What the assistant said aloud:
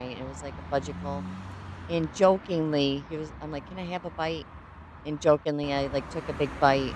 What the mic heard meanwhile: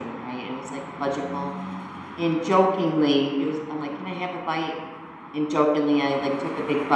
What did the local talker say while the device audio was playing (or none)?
none